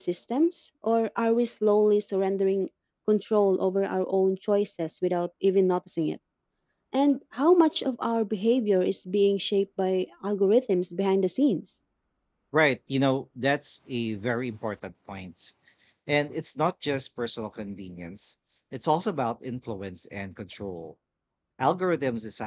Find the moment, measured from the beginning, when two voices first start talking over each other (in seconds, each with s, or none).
none